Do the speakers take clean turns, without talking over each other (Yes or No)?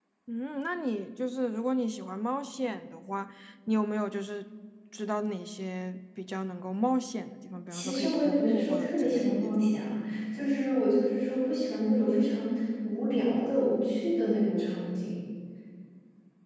No